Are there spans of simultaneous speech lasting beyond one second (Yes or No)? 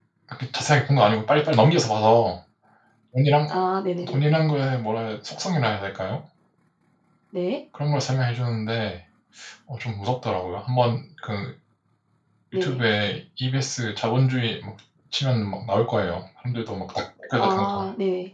No